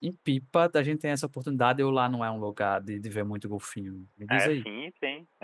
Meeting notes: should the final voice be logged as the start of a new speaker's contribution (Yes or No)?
Yes